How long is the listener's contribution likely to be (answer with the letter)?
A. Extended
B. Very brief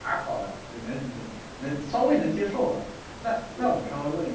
B